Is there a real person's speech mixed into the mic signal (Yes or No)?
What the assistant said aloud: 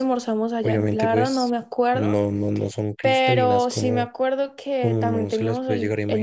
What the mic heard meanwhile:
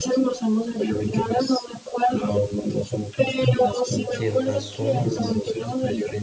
Yes